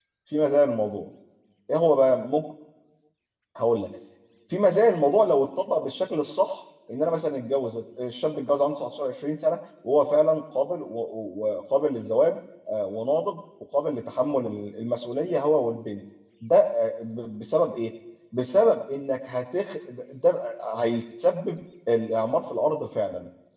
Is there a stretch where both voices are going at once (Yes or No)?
No